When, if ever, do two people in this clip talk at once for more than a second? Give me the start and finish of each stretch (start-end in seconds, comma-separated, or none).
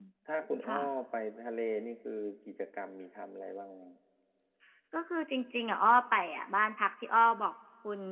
none